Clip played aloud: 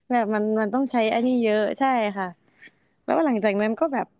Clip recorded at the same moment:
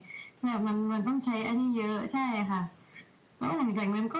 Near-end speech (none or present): none